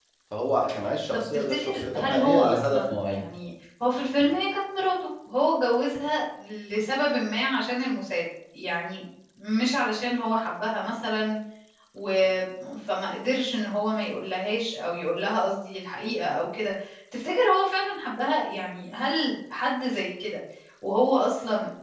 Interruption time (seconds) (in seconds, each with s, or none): 1.1 s